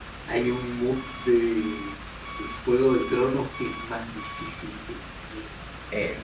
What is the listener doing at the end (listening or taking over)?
taking over